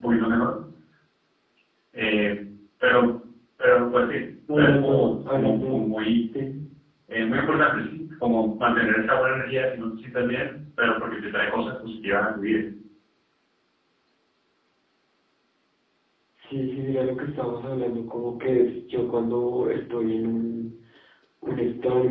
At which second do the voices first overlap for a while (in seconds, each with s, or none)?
4.5 s